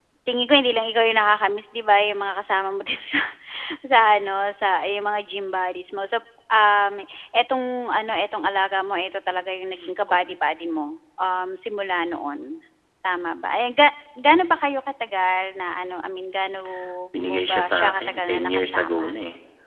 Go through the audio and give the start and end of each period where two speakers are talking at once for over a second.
17.2-19.1

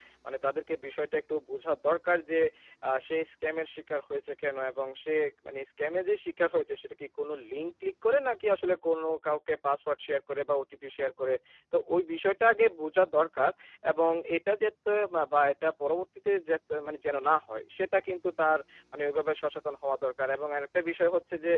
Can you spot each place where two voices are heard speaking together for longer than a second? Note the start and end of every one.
none

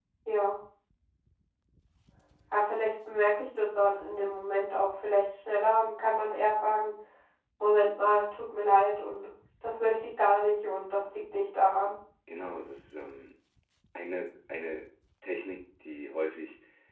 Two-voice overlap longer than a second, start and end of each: none

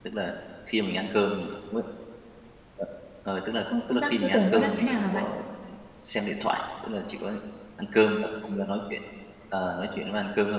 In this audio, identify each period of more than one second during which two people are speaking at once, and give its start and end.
3.9-5.2

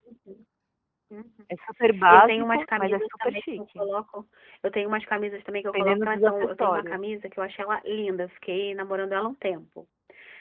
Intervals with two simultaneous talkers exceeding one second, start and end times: 2.1-3.9, 5.7-7.0

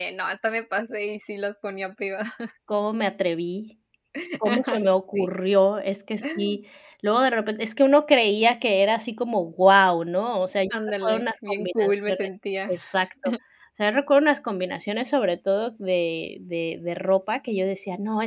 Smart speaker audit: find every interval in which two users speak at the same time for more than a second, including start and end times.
10.7-12.3

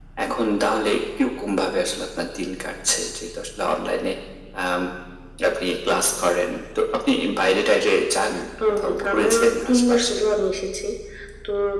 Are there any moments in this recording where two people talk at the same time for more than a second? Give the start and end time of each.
8.7-10.2

